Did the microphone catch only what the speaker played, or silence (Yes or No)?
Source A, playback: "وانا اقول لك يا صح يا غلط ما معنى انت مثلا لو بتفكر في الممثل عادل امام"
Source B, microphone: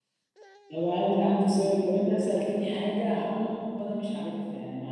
No